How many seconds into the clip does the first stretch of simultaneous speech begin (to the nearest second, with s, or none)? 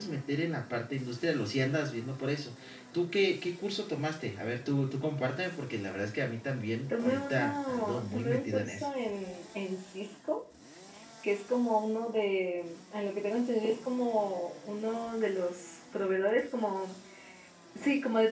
7 s